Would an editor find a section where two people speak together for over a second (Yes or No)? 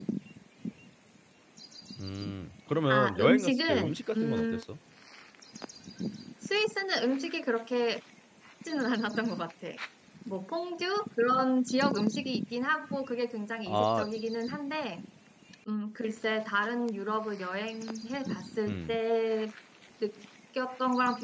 Yes